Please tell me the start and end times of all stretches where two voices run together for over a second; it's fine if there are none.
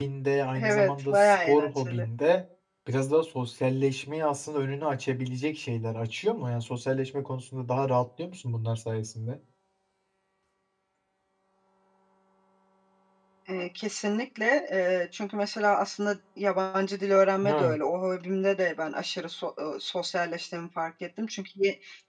0.6-2.0

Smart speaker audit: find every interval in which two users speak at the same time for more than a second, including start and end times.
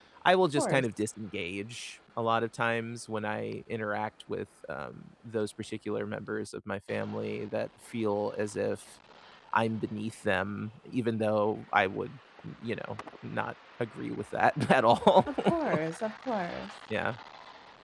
none

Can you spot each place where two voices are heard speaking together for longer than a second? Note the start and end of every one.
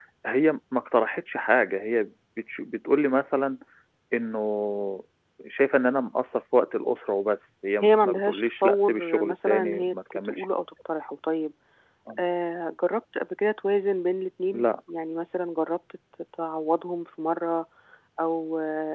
7.8-10.4

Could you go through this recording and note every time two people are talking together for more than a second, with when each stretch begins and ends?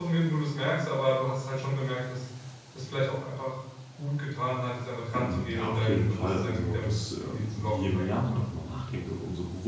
5.1-8.4

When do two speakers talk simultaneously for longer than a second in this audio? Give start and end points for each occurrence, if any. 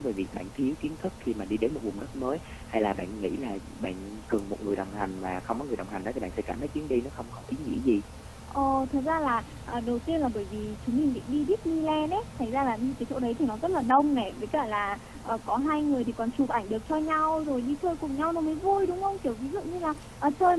none

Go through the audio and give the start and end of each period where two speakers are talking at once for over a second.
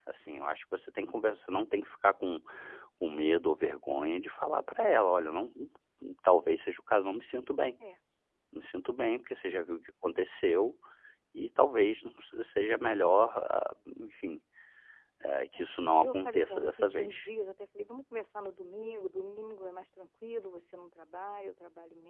15.6-17.2

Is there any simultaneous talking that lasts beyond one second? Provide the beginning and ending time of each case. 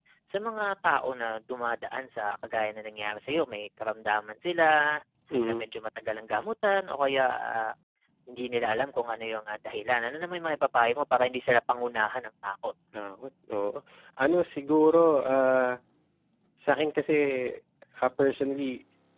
none

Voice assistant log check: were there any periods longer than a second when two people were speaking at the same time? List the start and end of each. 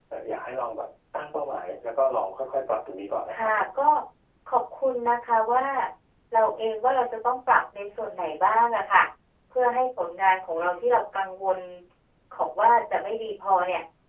none

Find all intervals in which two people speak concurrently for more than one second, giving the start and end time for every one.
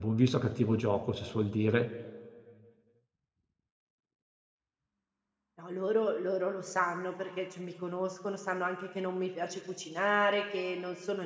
none

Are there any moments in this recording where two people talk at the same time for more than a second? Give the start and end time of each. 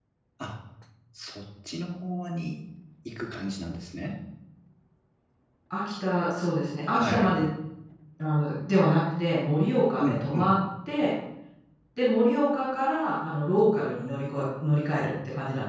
none

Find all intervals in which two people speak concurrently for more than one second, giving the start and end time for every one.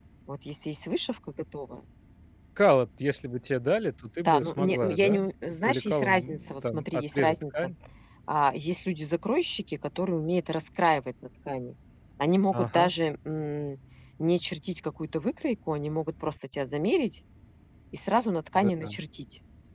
4.2-7.7

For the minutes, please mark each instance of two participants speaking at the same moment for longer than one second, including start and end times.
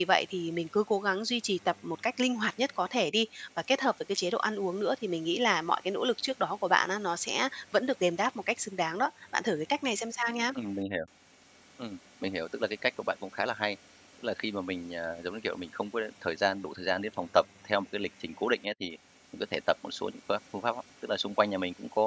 none

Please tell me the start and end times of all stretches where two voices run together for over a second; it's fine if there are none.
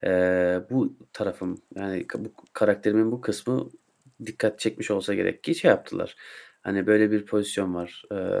none

